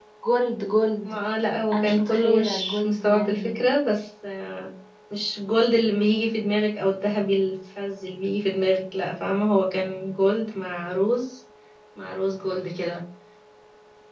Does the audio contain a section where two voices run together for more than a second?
Yes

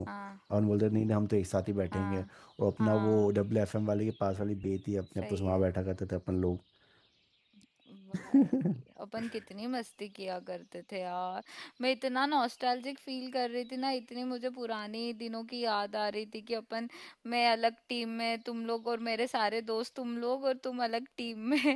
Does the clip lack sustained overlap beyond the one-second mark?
Yes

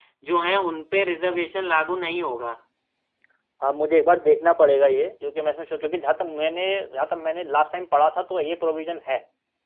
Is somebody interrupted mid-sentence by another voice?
No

